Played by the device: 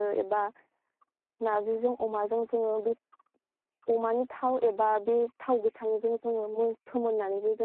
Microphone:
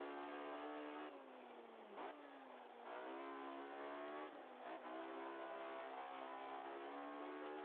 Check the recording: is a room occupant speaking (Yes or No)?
No